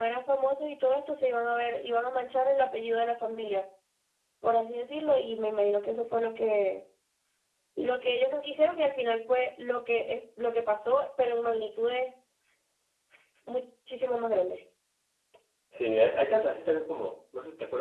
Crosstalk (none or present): none